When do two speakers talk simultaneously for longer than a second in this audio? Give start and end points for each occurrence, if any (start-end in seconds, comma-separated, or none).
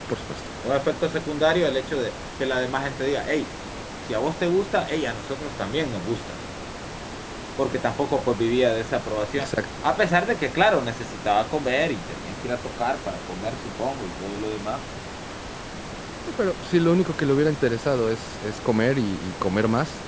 none